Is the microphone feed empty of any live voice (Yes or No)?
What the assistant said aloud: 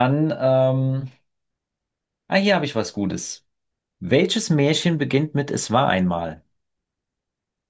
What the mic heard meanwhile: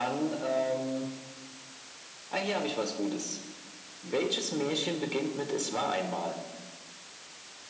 Yes